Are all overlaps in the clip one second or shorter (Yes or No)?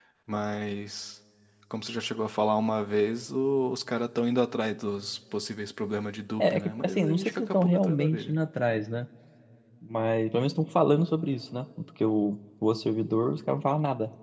No